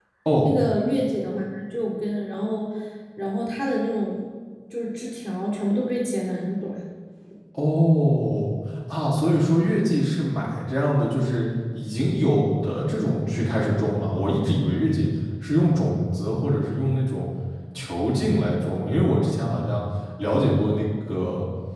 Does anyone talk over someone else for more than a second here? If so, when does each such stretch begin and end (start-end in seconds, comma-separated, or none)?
none